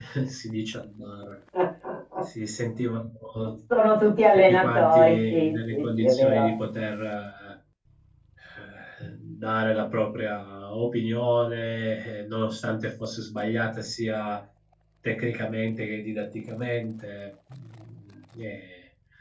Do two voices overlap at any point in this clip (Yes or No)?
Yes